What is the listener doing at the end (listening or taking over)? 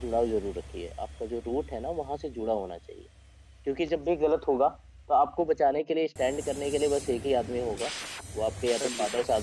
listening